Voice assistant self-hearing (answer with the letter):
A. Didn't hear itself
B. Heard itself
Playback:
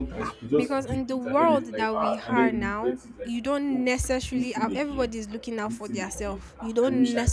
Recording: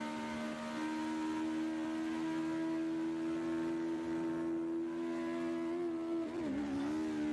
A